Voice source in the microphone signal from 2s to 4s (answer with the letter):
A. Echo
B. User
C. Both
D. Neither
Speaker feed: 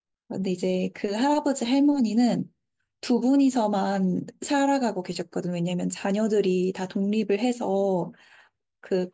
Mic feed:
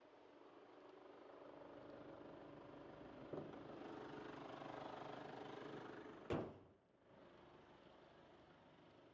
D